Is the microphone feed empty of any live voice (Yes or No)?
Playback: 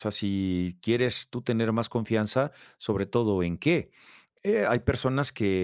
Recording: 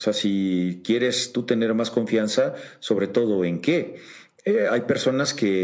Yes